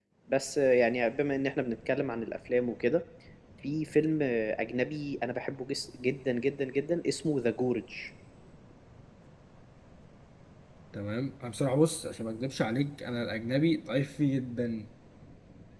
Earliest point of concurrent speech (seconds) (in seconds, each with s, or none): none